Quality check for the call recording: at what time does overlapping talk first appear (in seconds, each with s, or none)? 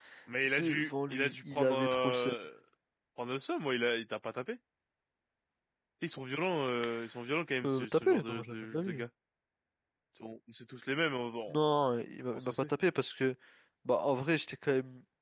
0.6 s